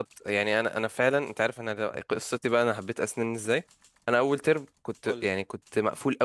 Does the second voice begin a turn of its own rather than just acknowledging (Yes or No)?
No